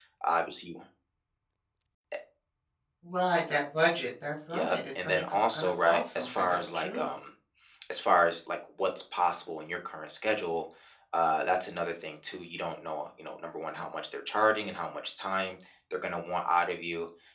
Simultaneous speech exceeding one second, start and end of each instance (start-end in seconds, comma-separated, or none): 4.5-7.1